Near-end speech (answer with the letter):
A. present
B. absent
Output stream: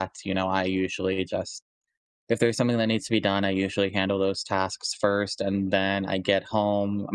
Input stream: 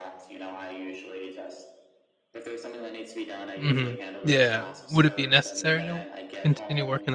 A